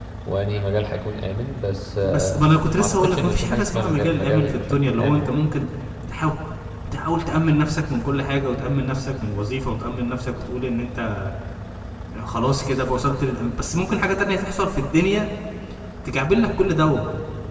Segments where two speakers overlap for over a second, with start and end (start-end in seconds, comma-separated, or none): 2.0-5.3